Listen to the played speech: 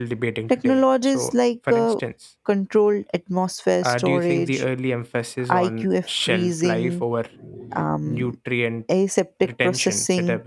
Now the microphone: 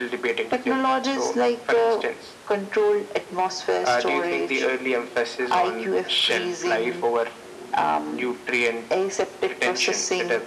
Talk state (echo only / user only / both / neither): echo only